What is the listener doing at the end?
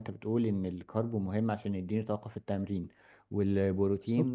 listening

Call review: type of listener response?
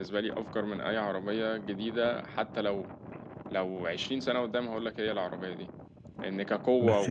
listening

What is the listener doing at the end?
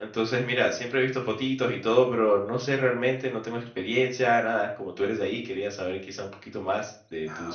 taking over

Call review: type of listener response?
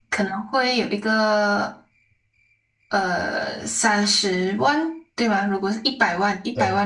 listening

